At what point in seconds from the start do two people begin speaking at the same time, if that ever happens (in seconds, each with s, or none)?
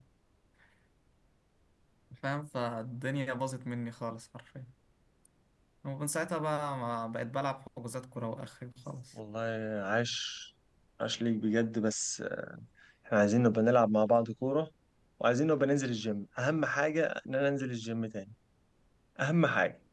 none